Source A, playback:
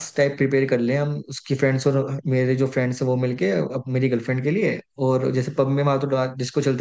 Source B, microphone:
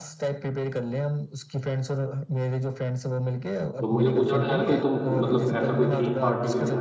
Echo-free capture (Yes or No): No